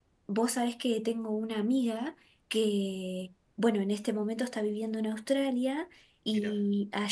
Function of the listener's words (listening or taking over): listening